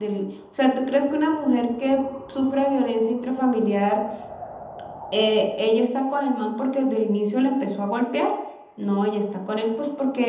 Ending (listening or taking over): listening